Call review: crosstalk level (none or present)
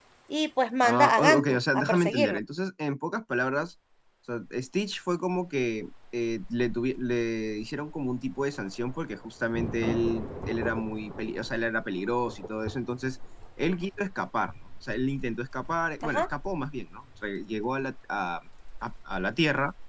present